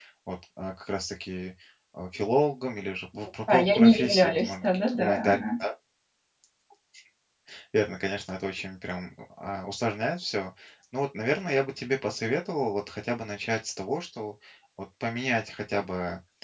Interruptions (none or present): present